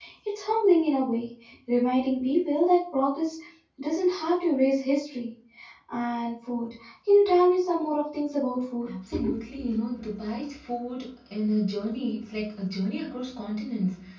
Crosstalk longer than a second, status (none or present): none